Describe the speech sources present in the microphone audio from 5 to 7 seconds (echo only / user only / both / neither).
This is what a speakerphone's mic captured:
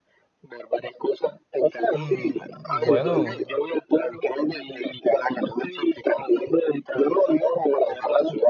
echo only